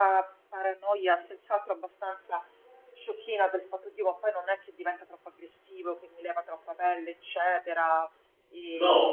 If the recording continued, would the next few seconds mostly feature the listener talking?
Yes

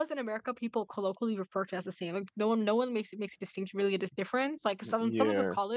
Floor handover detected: No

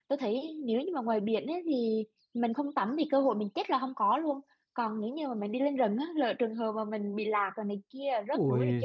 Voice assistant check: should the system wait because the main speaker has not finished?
No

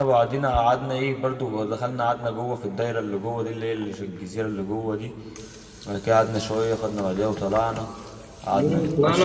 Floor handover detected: Yes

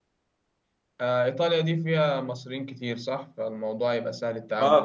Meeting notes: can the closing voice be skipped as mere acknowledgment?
No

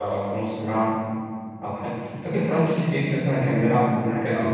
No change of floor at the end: No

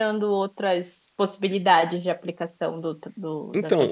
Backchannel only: No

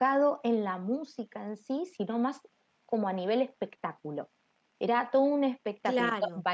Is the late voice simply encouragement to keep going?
Yes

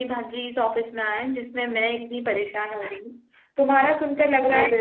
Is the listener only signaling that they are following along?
Yes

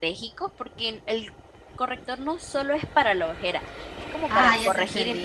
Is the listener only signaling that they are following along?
No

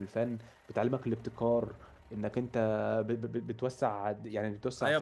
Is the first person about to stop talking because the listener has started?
Yes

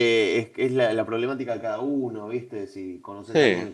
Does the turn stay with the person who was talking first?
Yes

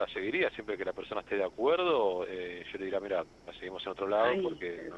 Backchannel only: Yes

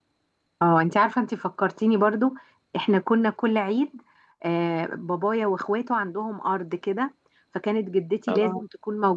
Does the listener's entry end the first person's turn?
No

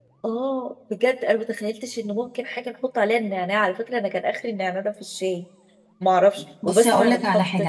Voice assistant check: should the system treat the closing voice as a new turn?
Yes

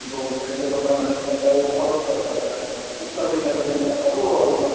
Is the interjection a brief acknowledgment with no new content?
Yes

